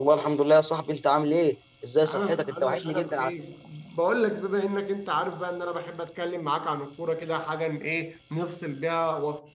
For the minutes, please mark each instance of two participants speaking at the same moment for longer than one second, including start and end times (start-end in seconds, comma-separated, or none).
2.1-3.3